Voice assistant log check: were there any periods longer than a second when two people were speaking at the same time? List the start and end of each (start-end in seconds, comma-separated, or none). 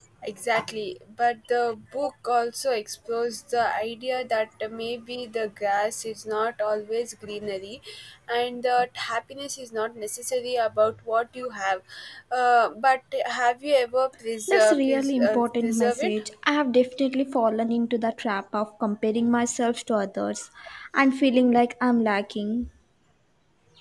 14.5-16.2